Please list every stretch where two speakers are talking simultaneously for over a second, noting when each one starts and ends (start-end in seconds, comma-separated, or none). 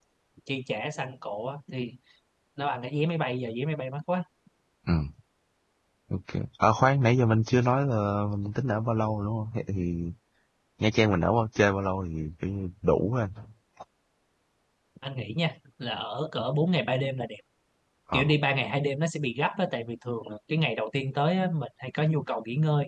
none